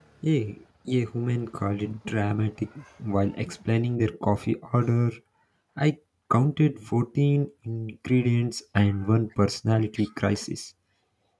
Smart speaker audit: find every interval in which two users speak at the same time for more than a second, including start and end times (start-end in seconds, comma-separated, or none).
none